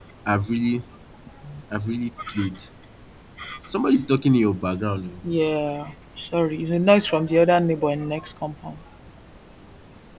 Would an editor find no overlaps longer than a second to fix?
Yes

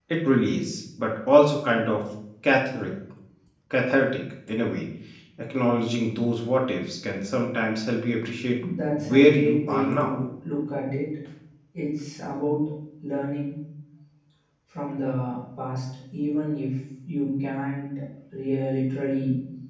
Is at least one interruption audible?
Yes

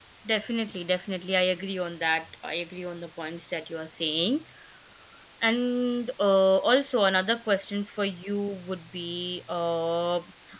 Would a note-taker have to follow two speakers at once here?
No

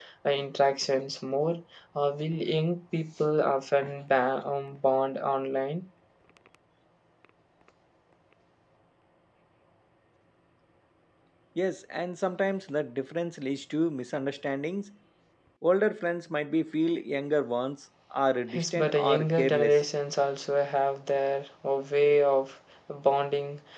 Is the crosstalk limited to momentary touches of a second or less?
No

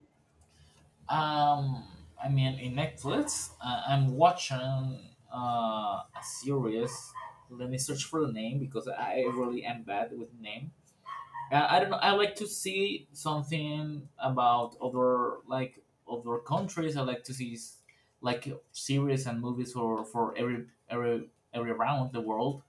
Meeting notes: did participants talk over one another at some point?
No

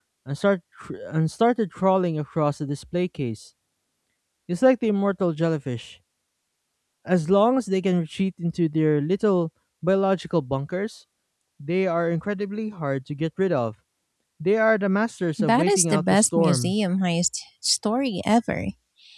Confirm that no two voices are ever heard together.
No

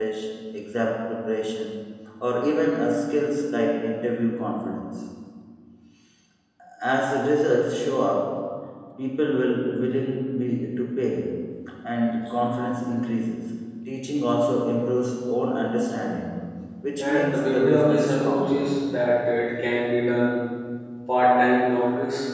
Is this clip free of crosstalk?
No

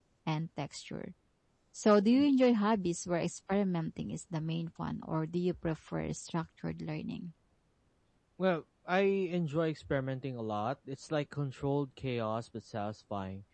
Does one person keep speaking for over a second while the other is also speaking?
No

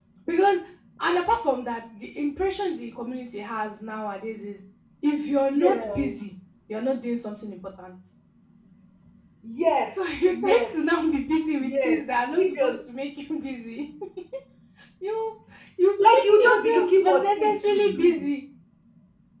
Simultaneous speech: Yes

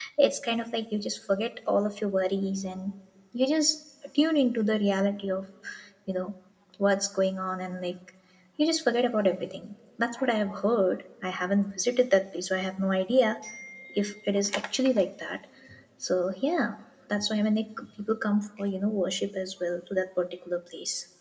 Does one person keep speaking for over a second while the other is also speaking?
No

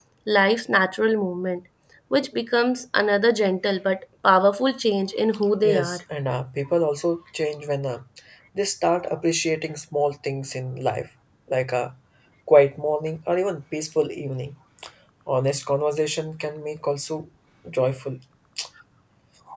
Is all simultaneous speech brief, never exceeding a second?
Yes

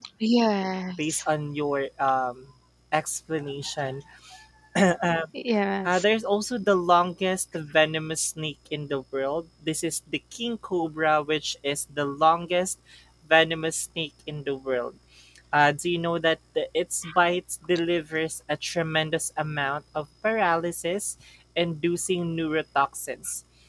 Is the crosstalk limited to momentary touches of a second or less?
Yes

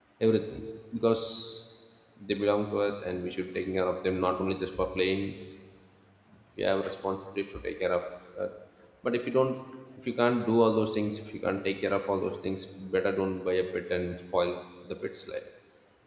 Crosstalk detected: No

